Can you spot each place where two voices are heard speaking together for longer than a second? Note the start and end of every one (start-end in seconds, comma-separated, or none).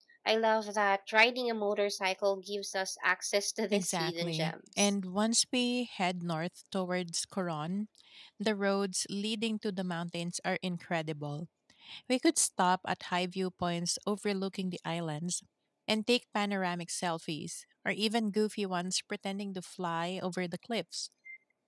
3.7-4.9